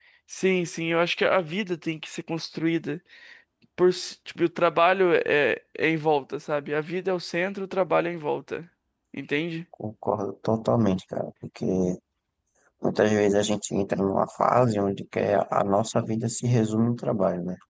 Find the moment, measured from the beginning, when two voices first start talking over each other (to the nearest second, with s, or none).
none